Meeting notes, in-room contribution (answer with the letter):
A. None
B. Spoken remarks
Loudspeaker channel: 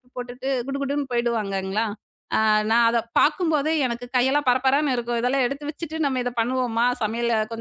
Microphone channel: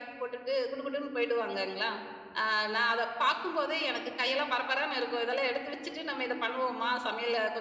A